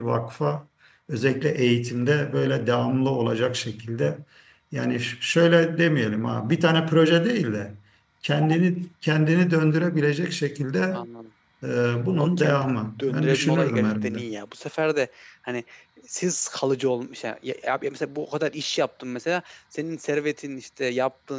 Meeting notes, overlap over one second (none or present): present